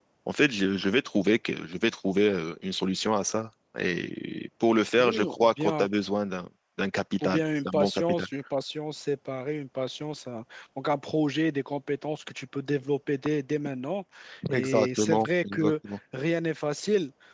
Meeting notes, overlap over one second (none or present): present